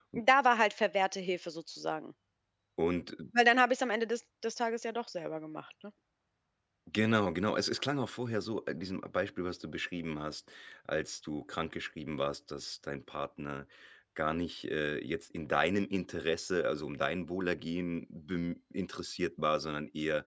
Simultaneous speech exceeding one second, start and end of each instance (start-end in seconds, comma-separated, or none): none